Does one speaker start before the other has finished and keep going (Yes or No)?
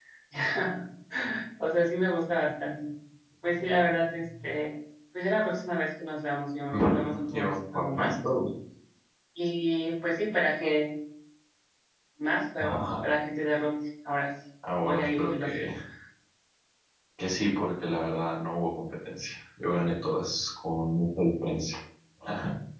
Yes